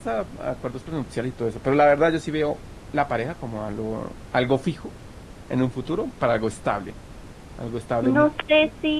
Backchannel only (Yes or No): No